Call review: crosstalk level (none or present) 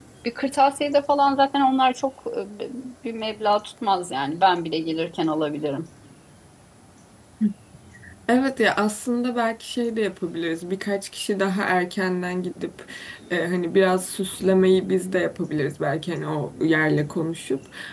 none